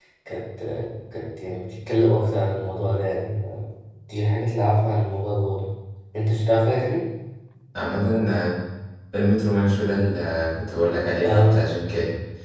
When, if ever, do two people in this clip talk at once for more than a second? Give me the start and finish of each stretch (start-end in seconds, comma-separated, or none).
none